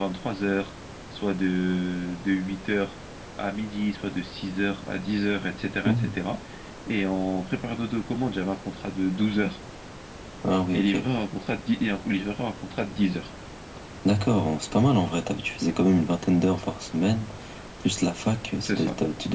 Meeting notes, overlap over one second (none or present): none